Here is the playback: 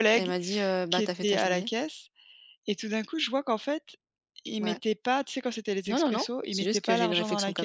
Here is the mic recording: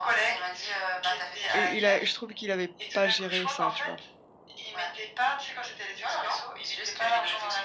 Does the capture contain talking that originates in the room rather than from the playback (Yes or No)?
Yes